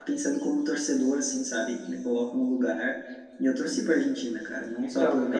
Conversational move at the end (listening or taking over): listening